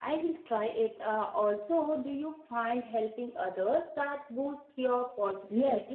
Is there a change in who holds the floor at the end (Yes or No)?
Yes